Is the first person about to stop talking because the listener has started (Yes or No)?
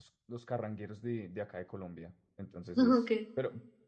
No